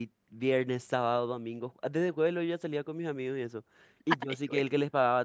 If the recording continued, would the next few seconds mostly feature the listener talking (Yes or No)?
No